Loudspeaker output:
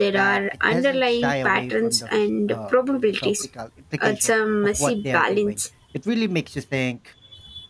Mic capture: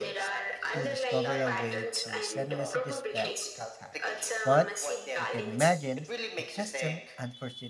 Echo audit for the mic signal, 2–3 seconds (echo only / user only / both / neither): both